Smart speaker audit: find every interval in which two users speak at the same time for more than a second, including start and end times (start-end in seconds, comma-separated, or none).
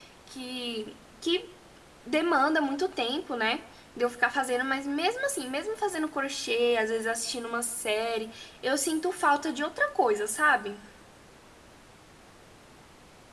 none